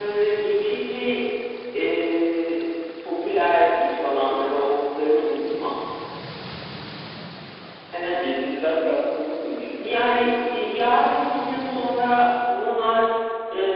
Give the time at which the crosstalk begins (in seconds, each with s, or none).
none